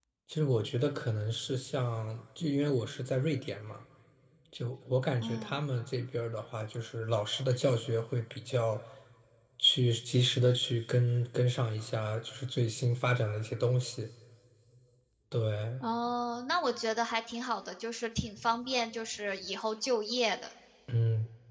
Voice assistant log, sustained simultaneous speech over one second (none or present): none